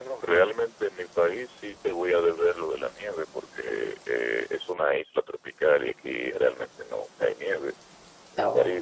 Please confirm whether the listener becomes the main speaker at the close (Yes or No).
No